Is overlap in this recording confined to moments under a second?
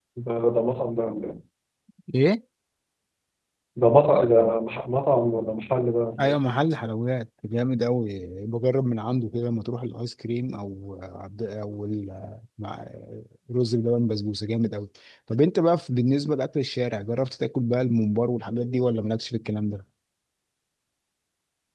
Yes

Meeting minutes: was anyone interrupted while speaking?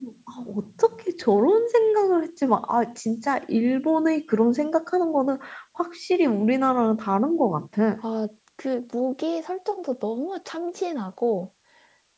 No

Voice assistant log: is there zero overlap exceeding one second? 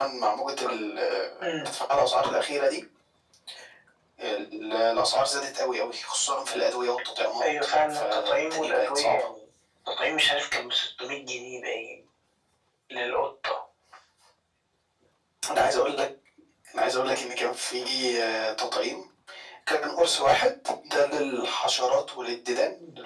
No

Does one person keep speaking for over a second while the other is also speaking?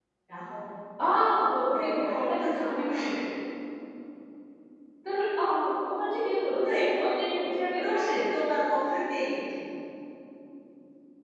Yes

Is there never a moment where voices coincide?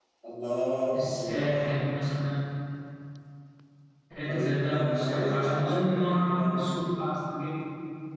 No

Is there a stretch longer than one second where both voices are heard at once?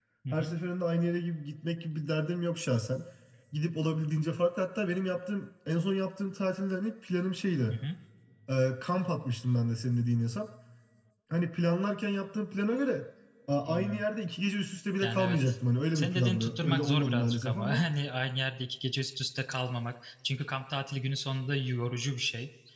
Yes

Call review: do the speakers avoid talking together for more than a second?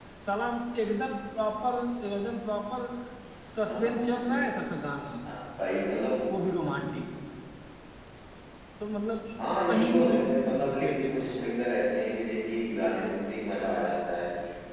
No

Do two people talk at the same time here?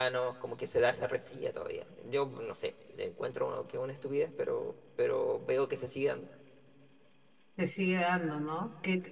No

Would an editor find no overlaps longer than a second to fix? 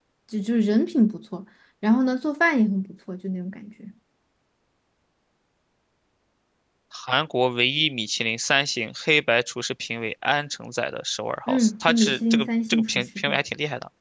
No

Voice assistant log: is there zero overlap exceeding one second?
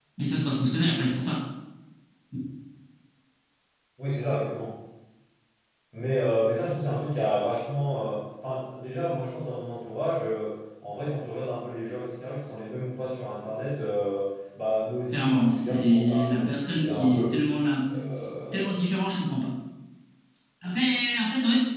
No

